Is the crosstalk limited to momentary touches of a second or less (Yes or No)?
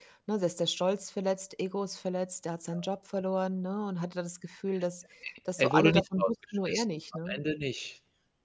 No